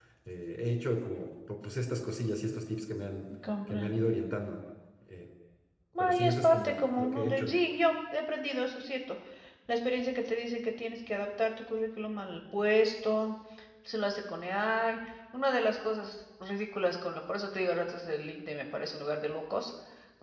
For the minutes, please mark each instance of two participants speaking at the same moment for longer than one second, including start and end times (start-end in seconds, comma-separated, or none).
6.0-7.6